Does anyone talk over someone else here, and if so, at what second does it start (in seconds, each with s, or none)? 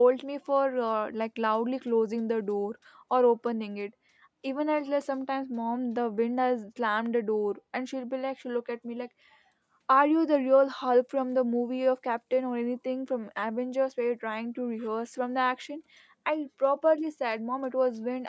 none